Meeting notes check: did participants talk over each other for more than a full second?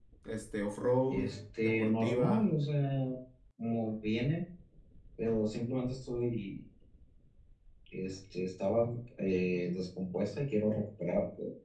Yes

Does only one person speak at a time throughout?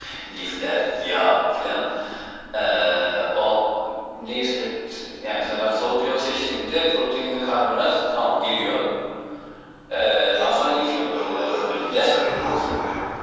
No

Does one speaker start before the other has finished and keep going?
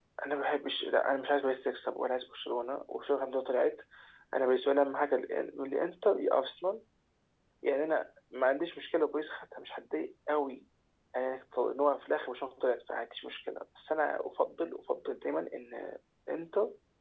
No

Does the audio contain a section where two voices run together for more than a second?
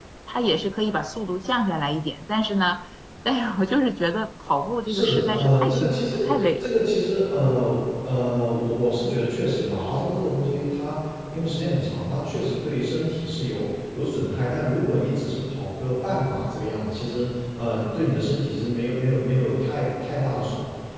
Yes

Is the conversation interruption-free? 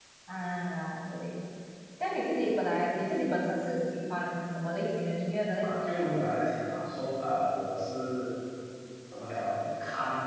Yes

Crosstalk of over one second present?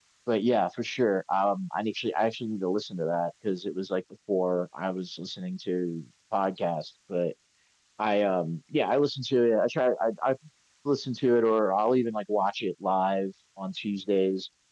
No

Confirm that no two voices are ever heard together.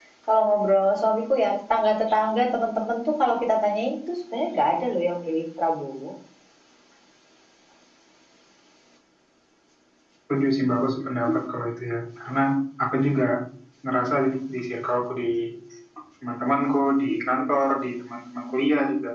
Yes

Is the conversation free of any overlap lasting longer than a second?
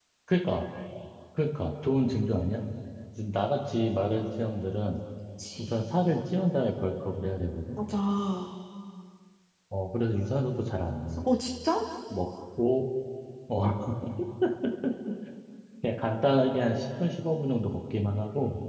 Yes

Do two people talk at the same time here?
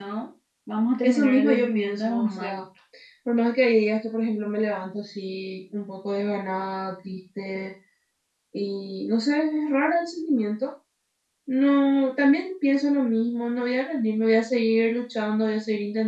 Yes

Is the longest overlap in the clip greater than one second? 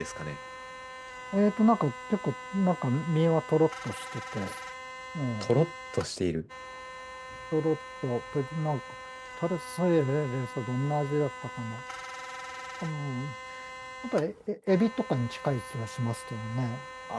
No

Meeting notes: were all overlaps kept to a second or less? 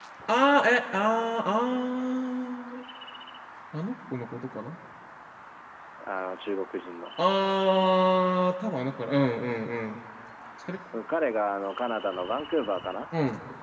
Yes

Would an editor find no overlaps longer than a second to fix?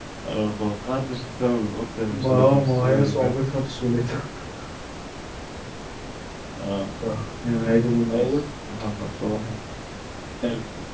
No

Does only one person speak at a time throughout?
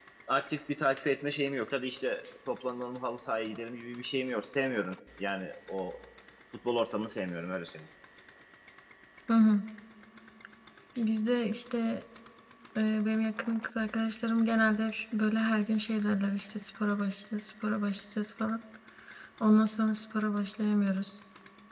Yes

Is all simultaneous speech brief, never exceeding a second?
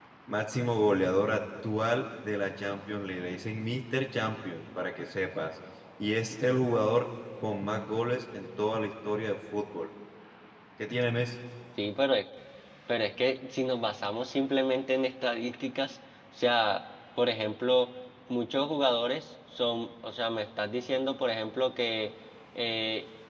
Yes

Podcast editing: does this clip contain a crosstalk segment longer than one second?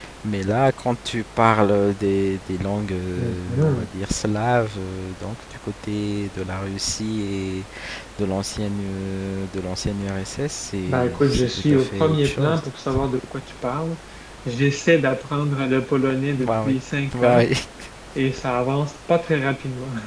Yes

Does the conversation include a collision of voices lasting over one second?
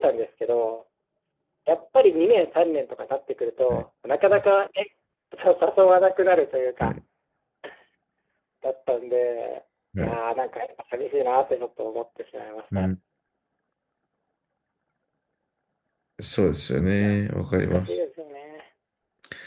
No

